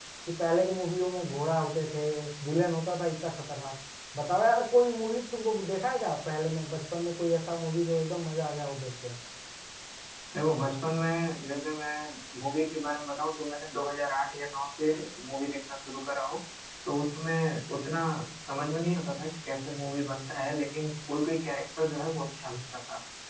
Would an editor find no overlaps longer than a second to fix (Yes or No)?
Yes